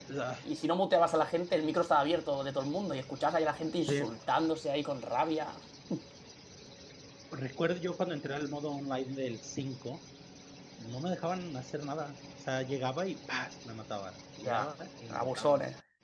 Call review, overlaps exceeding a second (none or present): none